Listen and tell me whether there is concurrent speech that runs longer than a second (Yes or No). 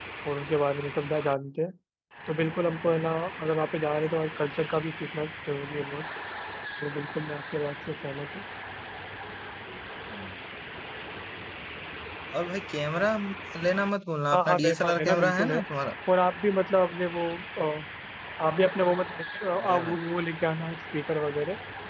Yes